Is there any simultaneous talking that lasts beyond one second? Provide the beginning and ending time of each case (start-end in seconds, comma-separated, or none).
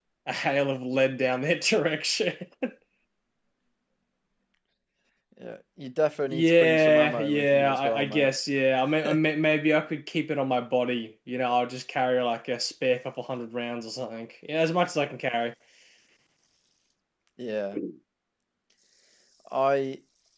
6.3-8.3